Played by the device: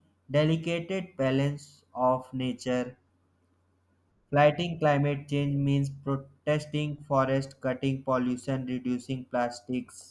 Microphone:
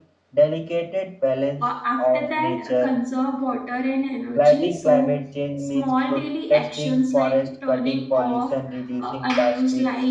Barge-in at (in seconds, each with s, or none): 1.6 s